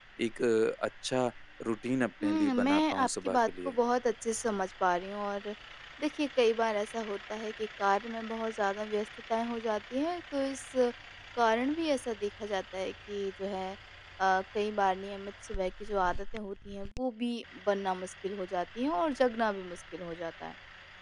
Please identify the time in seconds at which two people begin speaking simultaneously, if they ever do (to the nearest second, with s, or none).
2 s